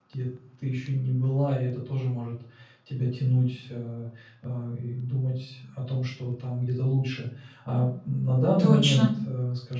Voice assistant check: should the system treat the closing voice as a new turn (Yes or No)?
No